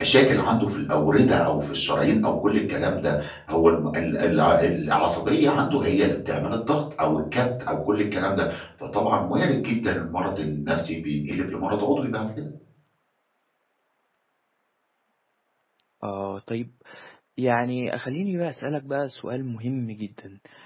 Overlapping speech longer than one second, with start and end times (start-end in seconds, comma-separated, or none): none